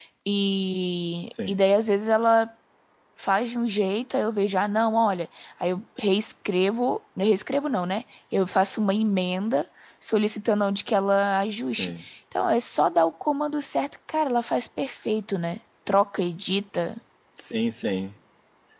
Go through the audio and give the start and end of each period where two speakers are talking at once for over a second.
none

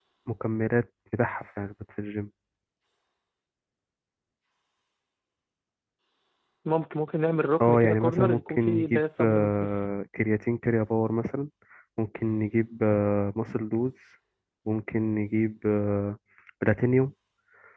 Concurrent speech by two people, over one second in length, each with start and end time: 7.6-9.7

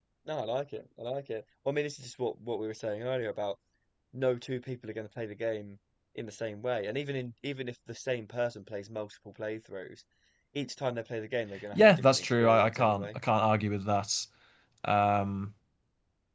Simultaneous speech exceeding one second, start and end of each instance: 11.7-13.2

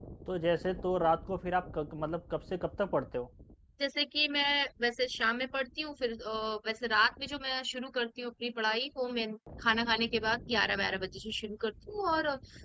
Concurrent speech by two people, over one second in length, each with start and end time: none

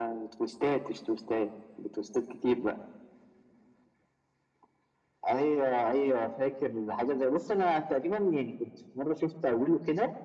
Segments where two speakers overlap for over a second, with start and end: none

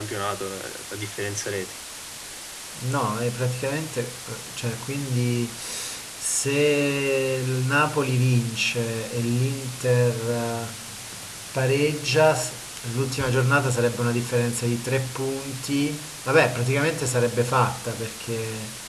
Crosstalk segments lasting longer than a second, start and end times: none

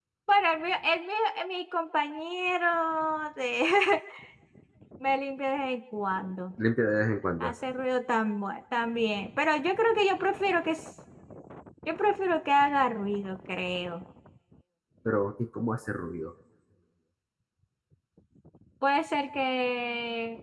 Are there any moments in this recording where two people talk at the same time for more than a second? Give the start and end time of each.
none

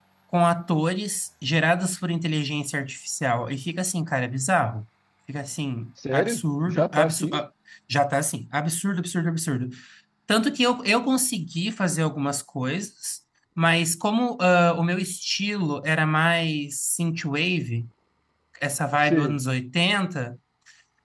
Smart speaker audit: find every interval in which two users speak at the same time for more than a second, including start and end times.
6.1-7.4

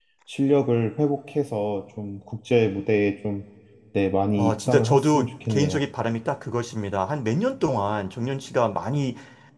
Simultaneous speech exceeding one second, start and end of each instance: 4.4-5.8

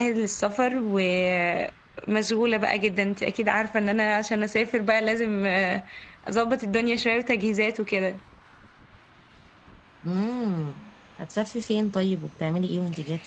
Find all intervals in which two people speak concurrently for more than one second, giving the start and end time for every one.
none

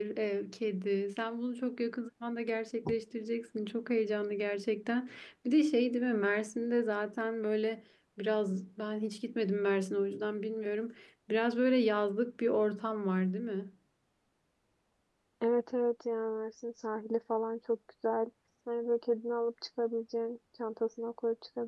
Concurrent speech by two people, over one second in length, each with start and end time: none

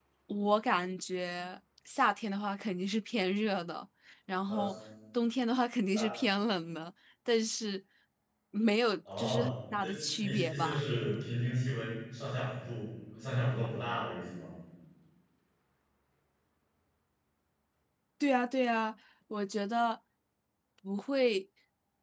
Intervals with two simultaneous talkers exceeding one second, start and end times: 9.2-10.8

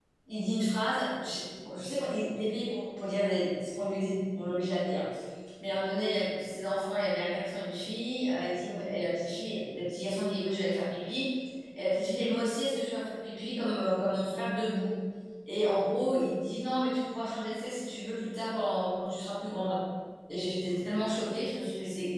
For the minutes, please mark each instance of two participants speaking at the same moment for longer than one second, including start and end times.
none

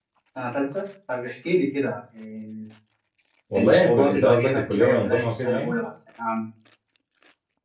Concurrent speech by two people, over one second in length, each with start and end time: 3.6-5.8

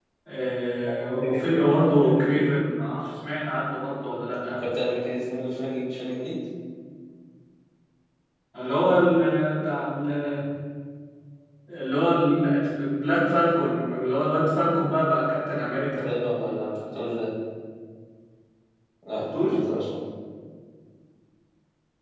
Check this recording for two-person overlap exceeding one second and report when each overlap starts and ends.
1.0-2.4

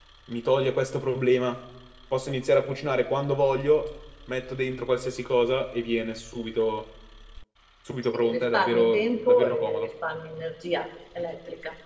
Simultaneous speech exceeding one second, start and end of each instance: 8.1-9.9

